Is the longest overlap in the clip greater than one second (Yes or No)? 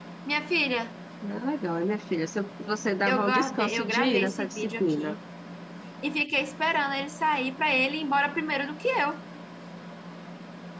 Yes